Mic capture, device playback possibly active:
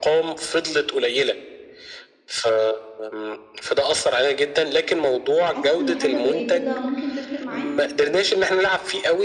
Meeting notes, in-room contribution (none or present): present